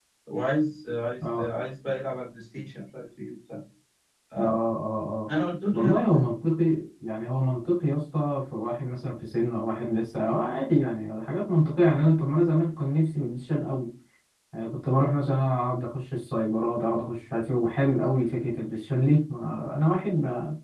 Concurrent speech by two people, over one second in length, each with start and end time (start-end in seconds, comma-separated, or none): none